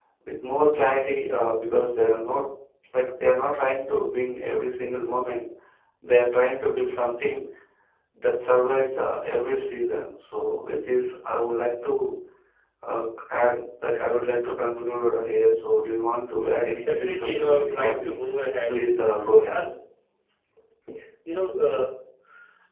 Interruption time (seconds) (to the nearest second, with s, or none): 17 s